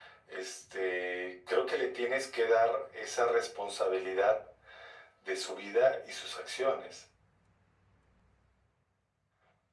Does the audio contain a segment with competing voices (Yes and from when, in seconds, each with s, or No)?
No